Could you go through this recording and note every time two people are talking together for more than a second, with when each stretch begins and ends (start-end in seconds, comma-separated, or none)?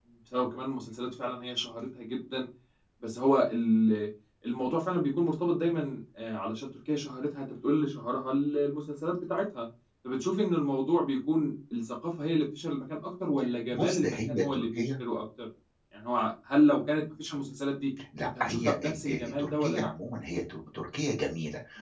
13.7-14.9, 18.4-19.9